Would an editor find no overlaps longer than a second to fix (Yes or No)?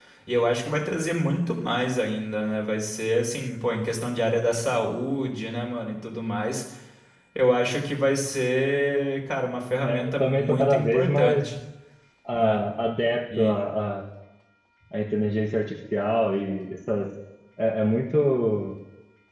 No